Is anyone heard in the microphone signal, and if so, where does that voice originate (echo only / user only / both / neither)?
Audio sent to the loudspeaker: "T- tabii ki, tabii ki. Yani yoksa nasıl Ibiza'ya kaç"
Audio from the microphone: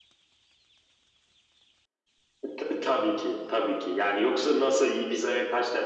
echo only